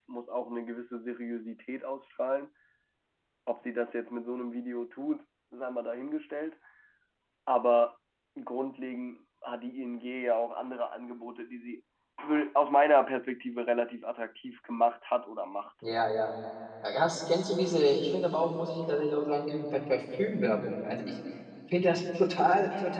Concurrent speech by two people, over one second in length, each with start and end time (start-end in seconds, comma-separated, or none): none